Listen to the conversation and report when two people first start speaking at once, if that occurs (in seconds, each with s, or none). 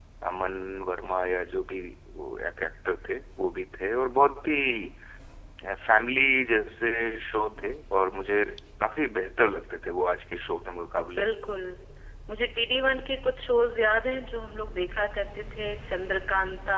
none